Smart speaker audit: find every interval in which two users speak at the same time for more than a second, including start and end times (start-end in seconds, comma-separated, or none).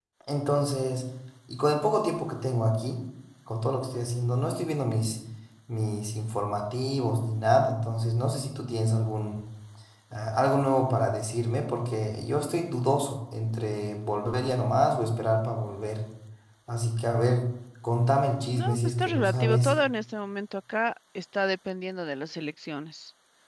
18.5-19.7